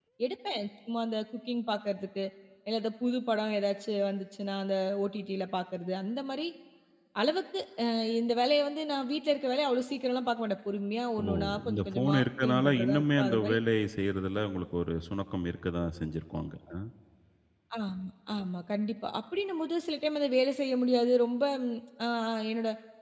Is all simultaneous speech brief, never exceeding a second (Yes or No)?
No